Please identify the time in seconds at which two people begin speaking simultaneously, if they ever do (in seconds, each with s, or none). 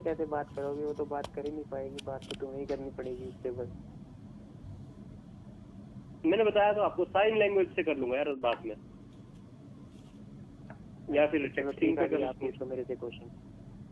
11.2 s